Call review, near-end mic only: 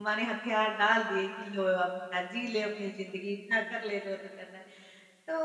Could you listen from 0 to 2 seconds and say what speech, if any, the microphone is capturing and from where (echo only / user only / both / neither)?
user only